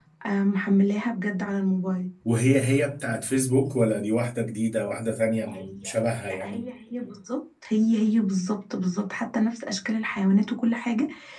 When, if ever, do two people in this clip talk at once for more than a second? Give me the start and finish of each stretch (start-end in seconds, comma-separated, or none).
none